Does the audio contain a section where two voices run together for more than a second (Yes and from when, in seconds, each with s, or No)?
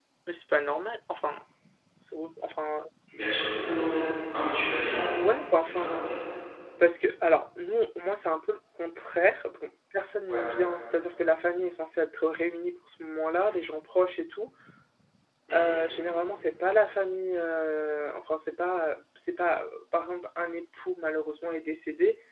No